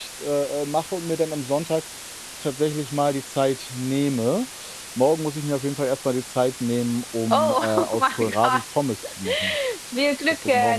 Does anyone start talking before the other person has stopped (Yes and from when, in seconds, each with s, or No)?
Yes, from 7.3 s